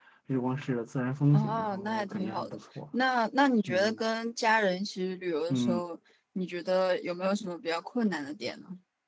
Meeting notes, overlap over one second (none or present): present